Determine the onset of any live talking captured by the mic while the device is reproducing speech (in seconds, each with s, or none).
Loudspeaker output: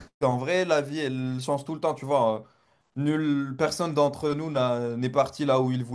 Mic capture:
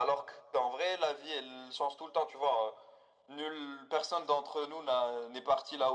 none